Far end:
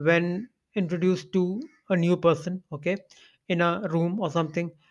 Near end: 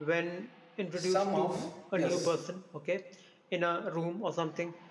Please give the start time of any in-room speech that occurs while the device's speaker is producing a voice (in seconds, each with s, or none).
0.9 s